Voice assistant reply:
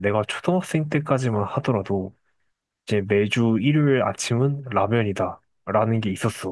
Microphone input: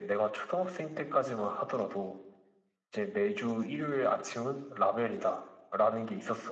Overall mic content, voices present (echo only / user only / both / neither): echo only